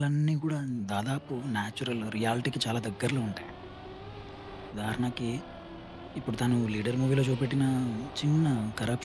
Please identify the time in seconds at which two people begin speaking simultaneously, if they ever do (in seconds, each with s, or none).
none